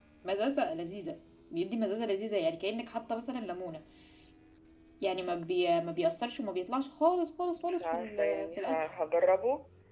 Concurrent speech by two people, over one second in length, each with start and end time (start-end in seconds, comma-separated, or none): 7.6-8.8